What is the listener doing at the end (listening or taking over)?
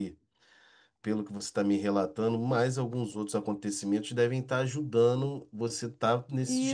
taking over